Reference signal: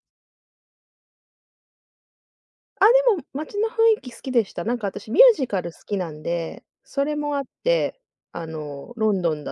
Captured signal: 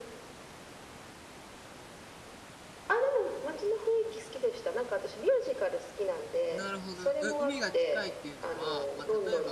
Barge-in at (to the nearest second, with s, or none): 7 s